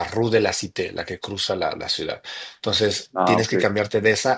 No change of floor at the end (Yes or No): Yes